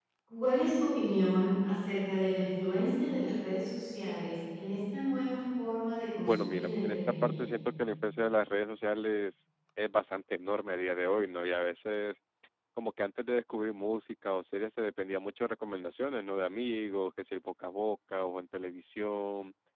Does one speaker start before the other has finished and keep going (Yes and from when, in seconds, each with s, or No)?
Yes, from 6.2 s